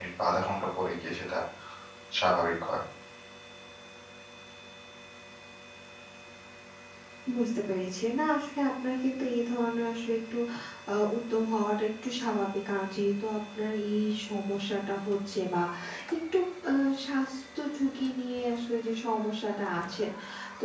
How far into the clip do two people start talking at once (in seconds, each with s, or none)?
none